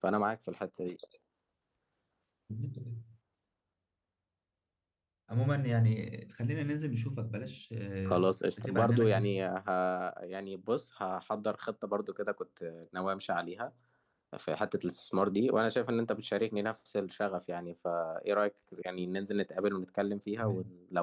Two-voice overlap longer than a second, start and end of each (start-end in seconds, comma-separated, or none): 8.1-9.3